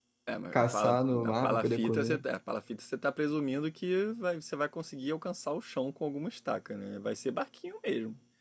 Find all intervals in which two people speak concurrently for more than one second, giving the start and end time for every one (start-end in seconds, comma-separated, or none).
0.5-2.2